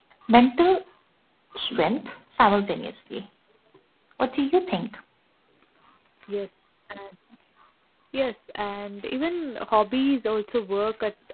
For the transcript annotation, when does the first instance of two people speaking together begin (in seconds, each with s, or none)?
none